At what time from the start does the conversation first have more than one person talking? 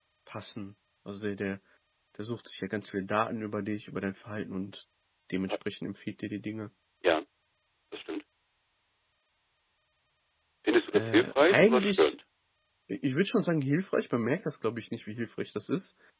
10.9 s

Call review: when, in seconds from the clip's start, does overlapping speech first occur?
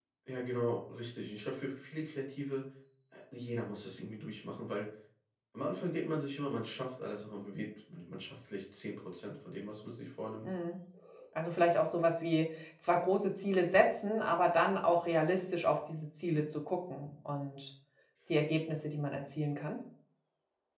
none

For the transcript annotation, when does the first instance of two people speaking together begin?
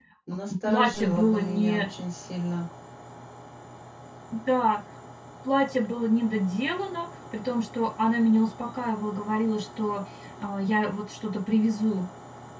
0.7 s

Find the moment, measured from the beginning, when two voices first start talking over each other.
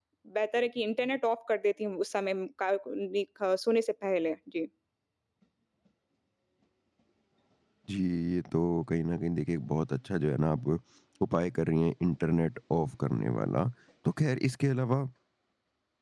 none

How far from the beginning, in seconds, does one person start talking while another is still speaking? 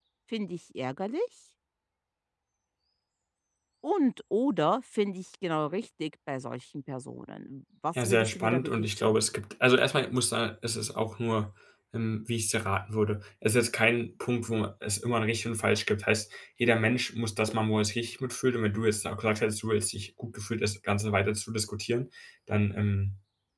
8.0 s

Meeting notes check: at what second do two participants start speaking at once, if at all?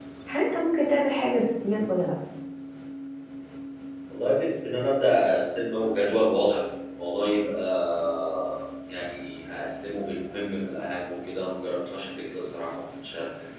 none

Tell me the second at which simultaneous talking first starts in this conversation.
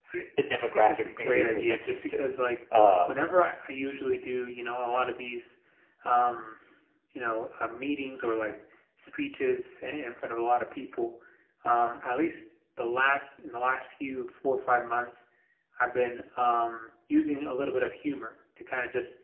0.6 s

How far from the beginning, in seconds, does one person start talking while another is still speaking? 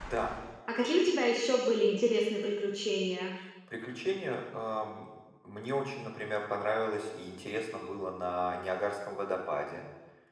none

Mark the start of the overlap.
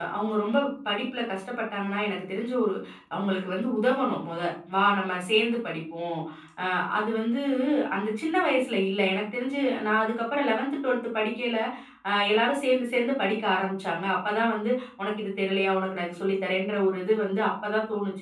none

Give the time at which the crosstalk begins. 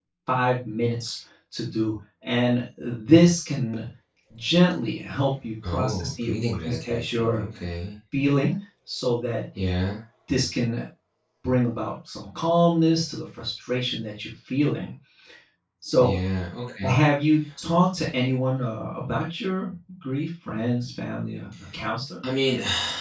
5.6 s

